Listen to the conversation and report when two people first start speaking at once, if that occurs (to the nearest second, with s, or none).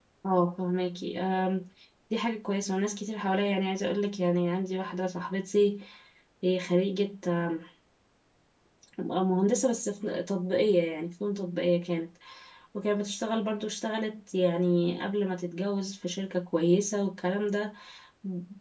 none